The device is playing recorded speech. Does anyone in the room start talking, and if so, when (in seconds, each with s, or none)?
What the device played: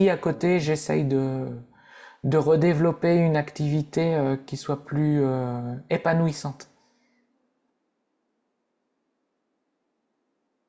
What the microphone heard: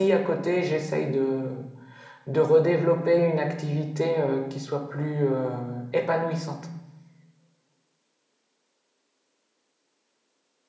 none